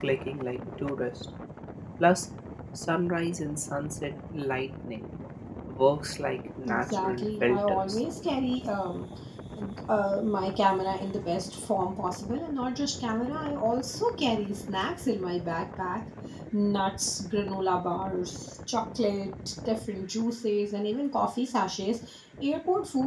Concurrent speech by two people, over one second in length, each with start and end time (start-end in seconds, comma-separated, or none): 6.6-8.0